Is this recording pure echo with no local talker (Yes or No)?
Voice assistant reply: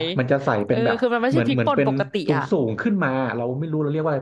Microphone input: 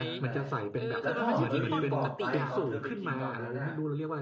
No